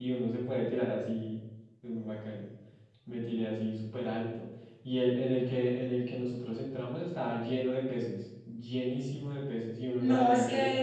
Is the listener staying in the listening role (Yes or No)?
No